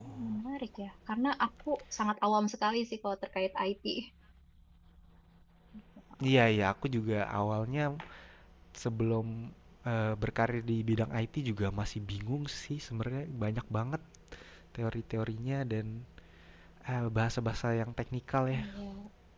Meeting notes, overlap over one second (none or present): none